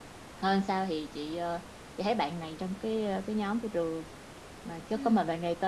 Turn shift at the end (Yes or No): No